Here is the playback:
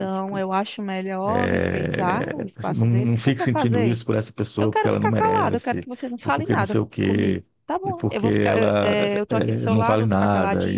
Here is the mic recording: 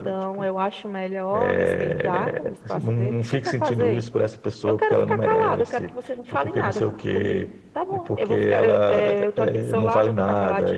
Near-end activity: none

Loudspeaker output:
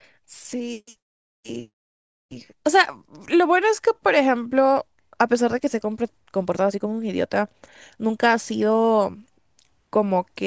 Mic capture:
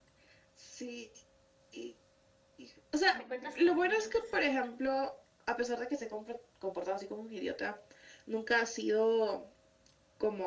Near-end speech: present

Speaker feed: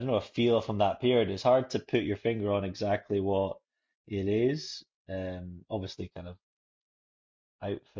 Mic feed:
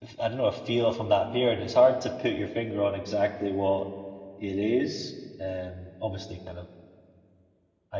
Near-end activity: none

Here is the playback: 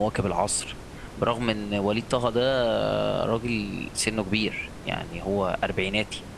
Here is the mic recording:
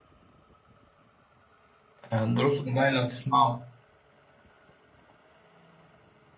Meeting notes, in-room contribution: present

